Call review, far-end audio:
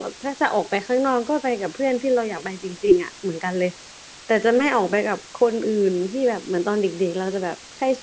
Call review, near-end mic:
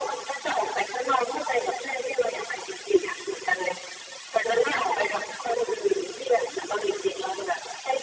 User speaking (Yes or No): No